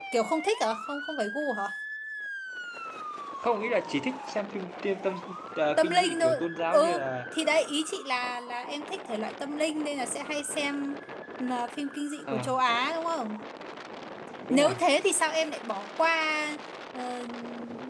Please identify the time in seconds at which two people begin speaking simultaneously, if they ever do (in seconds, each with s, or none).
5.8 s